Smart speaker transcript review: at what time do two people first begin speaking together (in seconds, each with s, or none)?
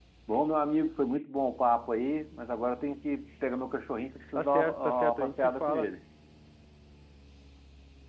4.4 s